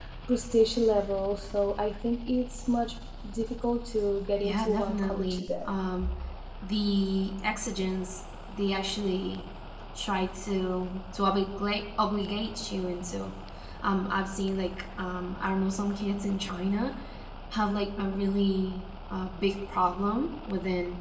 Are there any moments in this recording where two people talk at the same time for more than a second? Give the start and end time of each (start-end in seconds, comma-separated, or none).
4.4-5.8